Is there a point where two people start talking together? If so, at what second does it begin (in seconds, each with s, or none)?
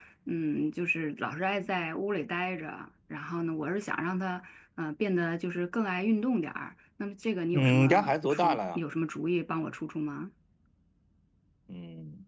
7.5 s